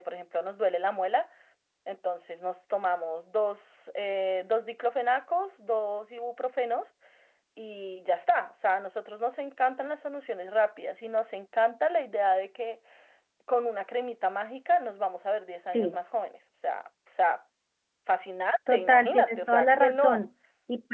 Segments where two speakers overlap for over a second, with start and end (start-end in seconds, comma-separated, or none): 18.7-20.2